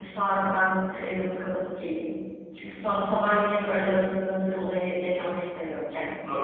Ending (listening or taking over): taking over